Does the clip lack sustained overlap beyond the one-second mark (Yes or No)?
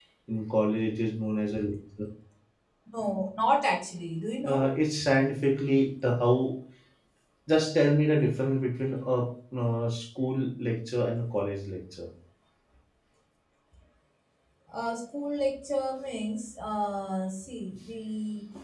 Yes